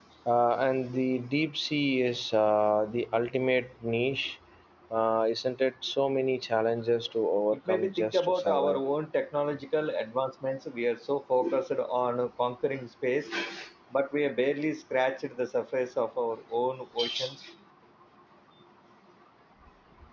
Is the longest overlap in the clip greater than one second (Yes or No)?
Yes